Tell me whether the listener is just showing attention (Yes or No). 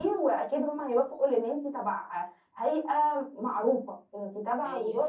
No